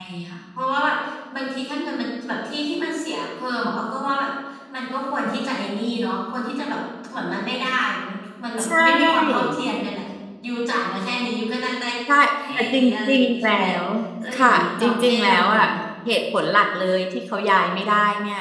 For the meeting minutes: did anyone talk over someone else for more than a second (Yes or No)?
Yes